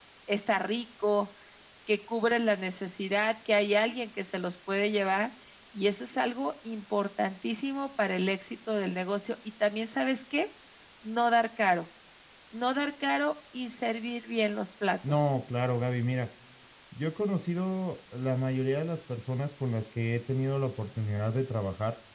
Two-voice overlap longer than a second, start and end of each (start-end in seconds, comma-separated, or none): none